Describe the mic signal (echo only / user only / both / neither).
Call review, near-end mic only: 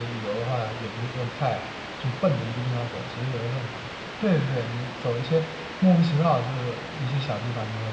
user only